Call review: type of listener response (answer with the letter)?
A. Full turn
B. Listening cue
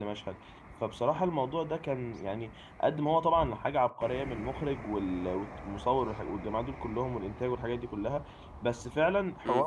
B